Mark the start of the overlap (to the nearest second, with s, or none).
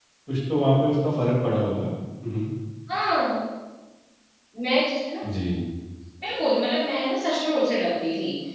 none